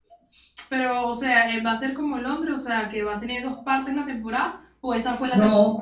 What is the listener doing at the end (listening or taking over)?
taking over